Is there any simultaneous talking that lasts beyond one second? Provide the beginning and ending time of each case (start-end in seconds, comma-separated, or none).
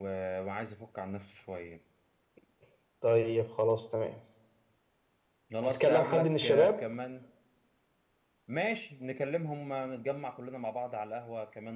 5.6-6.8